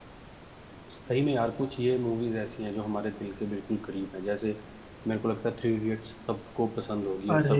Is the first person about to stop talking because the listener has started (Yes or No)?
Yes